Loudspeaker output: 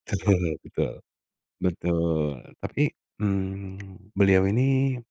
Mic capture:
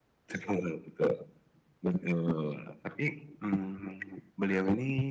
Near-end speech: none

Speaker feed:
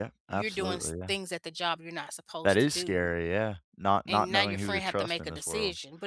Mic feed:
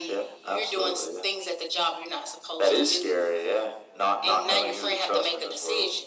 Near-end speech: none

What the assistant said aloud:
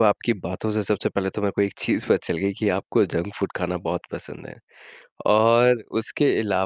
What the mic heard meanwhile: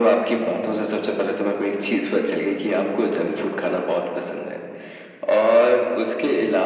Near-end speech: none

